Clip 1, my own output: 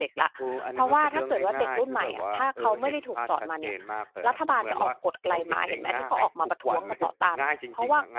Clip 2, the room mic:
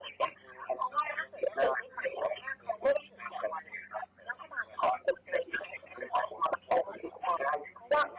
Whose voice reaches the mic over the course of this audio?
echo only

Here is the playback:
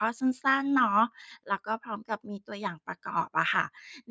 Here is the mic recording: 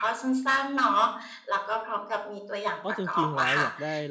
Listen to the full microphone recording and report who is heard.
both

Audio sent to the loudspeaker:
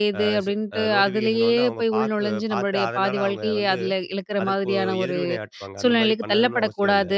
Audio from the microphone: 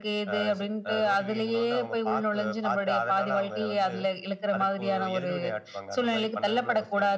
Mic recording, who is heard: echo only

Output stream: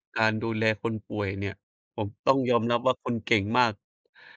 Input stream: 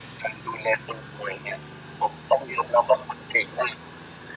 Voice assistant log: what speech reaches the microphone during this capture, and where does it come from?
echo only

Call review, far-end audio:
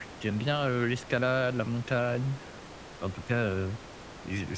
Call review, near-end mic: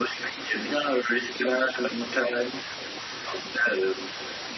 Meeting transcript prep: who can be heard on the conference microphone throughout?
echo only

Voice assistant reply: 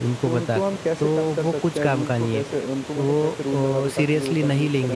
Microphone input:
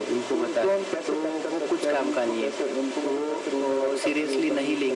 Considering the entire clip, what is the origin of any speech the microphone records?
echo only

